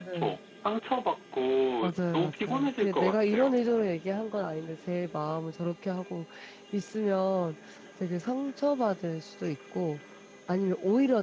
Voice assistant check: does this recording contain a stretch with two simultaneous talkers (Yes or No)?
Yes